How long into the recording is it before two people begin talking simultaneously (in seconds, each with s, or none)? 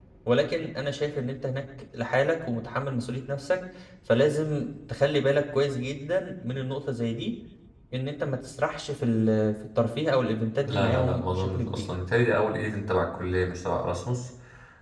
10.7 s